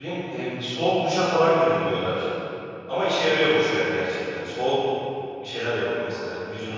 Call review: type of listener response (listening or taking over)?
taking over